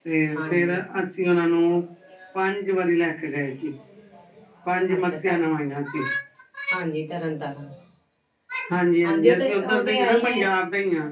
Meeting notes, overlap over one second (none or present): present